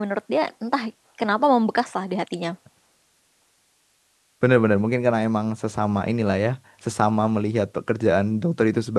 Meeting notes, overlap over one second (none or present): none